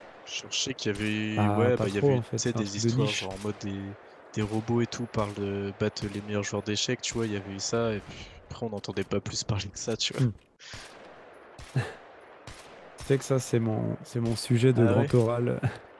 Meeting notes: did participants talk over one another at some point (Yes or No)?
Yes